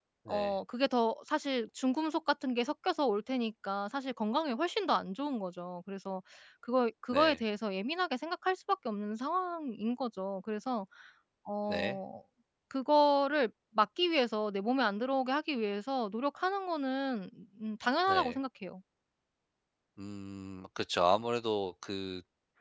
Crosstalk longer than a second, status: none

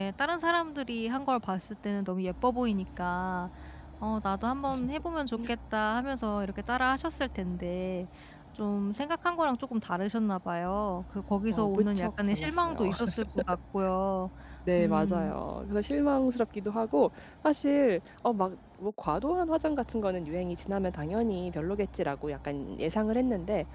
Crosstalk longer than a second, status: present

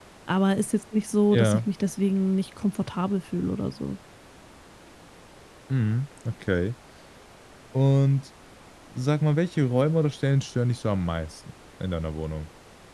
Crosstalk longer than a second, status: none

